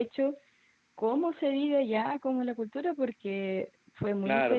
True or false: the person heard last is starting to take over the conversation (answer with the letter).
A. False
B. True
B